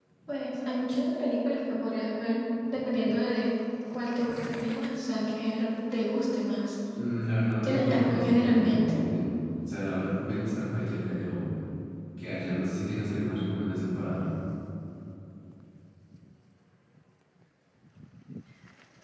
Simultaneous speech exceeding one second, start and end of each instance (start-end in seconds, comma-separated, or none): 7.6-9.0